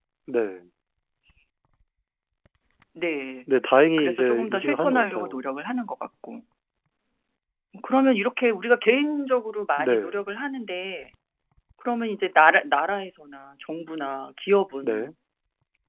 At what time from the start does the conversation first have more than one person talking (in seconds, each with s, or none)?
4.0 s